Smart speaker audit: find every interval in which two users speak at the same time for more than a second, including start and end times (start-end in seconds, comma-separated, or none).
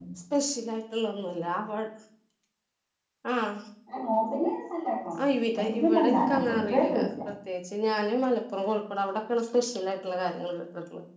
5.5-7.1